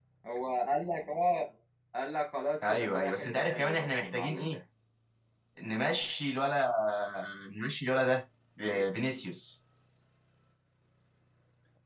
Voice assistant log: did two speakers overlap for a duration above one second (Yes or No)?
Yes